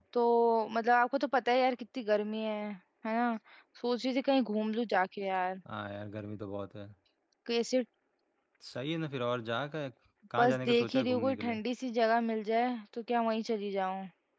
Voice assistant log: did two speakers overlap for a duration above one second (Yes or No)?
Yes